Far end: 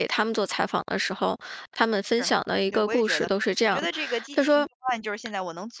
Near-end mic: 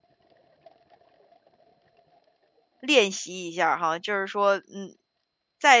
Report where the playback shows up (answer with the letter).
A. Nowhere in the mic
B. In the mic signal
A